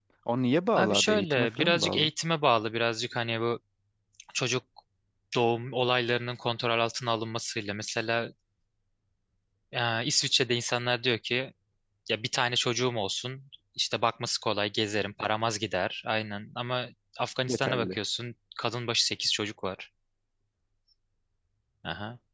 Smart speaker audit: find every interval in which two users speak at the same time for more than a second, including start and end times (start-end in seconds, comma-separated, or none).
0.8-2.1